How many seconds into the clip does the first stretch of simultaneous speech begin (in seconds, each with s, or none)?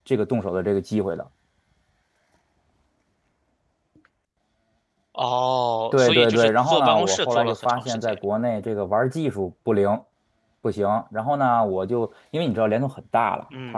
5.9 s